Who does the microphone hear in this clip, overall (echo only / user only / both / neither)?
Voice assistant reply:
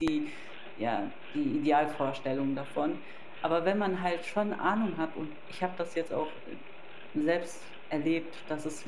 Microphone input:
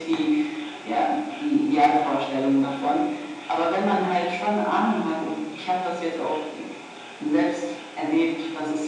echo only